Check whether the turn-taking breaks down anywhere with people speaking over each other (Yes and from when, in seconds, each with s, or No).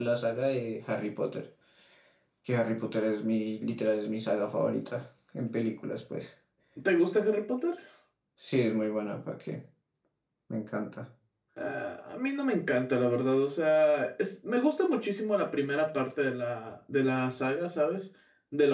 No